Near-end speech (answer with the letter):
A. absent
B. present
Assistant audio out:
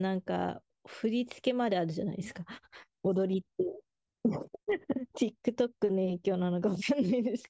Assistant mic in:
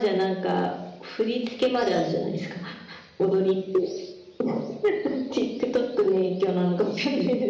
A